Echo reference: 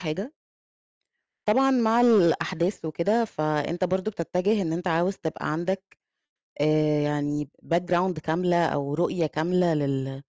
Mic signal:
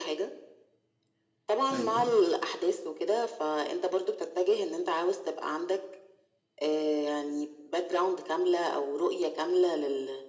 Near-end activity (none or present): present